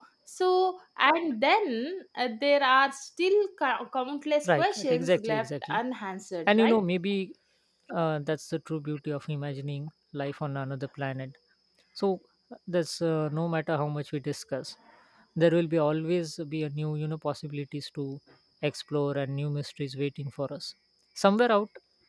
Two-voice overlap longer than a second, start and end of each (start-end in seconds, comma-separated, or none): 4.5-5.8